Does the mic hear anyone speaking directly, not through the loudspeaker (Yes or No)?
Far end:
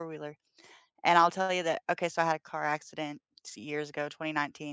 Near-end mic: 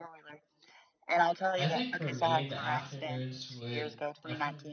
Yes